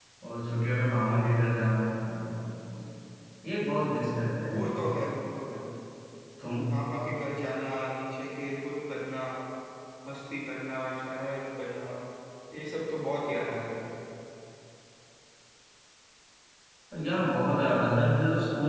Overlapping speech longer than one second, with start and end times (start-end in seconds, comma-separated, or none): none